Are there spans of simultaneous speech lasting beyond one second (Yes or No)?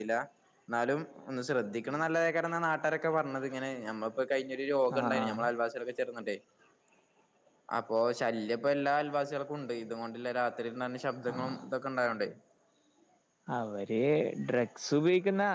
No